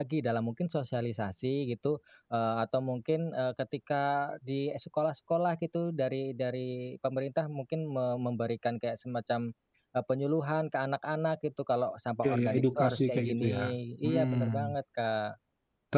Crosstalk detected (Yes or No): Yes